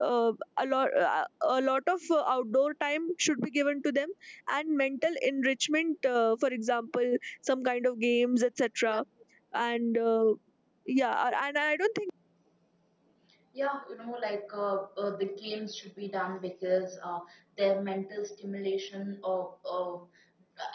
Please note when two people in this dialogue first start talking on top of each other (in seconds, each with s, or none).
none